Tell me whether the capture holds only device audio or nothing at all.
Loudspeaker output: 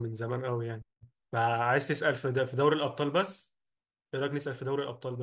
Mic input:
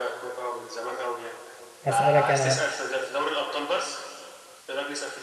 No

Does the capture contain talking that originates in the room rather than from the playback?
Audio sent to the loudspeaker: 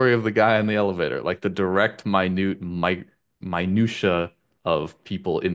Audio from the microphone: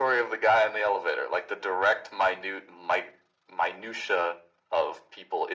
No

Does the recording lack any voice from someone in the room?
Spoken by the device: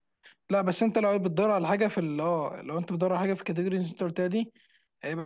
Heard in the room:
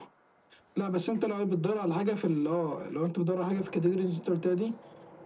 Yes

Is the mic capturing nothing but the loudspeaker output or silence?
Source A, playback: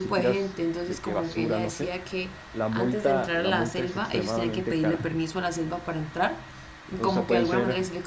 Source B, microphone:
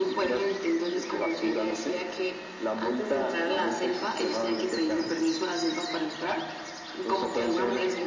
Yes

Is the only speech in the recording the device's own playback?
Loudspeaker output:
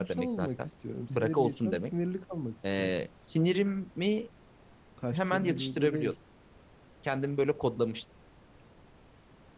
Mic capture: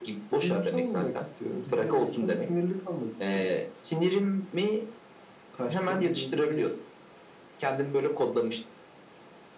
Yes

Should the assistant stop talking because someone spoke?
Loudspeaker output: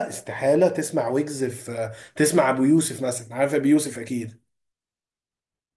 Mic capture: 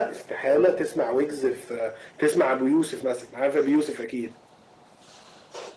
No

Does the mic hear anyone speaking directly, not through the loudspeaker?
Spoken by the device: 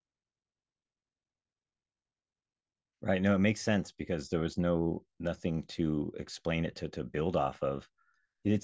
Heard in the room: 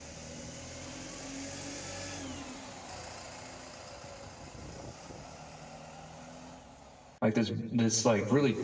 Yes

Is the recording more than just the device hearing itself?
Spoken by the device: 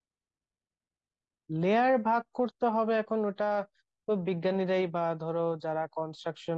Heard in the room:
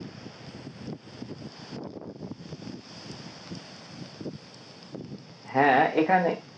Yes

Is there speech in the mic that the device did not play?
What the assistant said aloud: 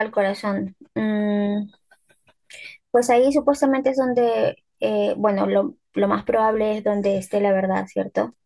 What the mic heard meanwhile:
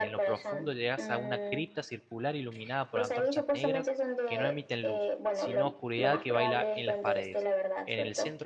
Yes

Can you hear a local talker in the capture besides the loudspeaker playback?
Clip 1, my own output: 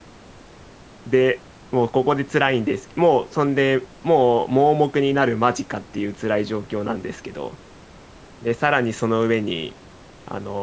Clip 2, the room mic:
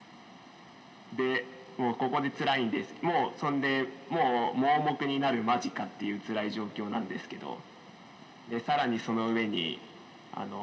No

